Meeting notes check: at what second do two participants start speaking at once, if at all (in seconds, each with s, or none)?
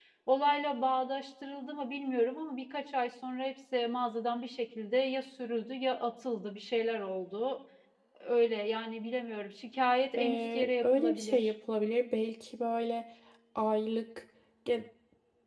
10.2 s